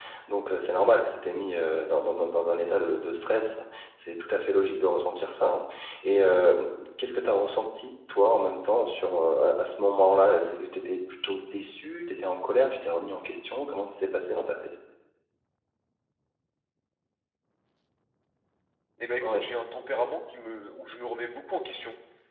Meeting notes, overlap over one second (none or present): none